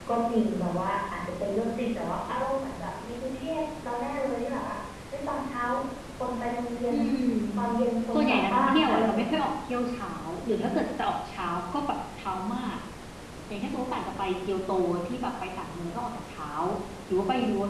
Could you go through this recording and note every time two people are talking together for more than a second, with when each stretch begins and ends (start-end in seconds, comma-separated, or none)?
8.1-9.5